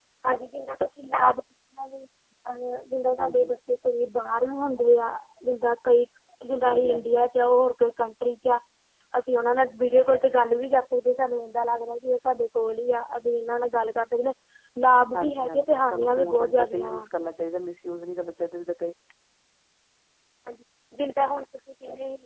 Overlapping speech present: Yes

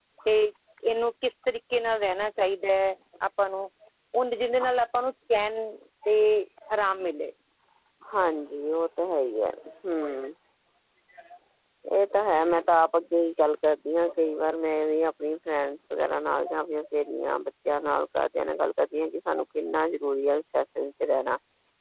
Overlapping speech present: No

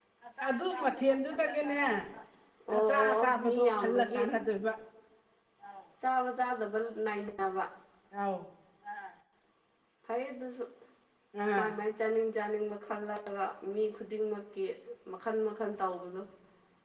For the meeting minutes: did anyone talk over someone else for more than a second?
Yes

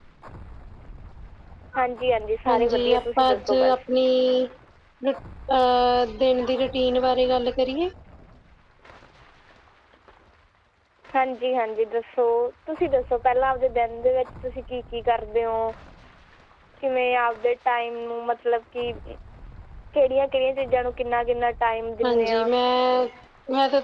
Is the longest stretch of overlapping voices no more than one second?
No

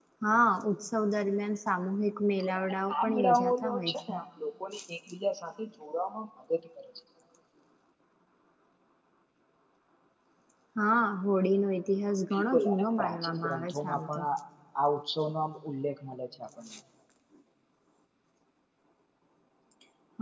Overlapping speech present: Yes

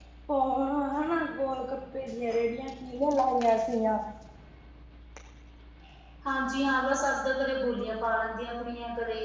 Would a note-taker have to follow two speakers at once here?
No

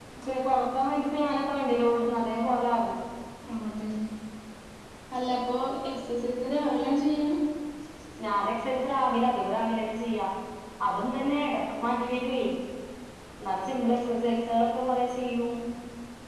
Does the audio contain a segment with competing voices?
No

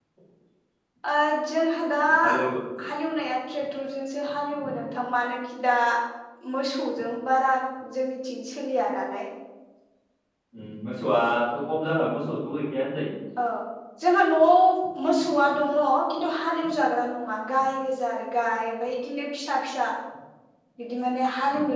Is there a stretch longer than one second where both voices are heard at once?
No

